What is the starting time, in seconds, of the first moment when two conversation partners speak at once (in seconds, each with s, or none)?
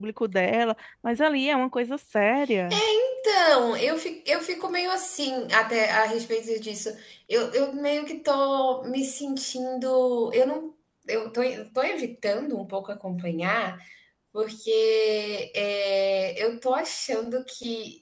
none